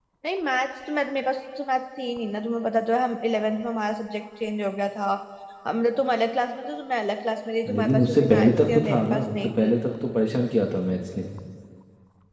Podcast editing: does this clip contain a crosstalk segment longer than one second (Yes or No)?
Yes